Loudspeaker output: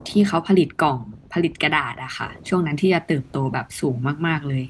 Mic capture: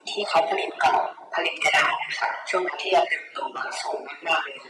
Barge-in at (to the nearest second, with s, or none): none